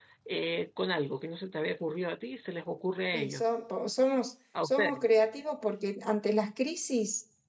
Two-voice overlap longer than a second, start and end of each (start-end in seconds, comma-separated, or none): none